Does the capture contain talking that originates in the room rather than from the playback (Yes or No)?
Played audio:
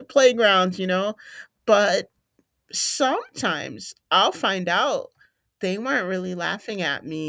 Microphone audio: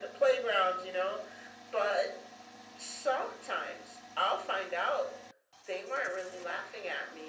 No